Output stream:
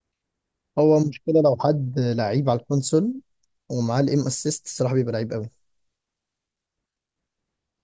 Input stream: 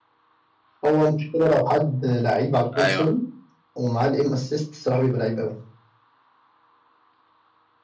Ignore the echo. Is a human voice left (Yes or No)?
Yes